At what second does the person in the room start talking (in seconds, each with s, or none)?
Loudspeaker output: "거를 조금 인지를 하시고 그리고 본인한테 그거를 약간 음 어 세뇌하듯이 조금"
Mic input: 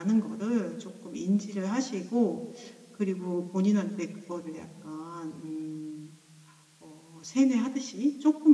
none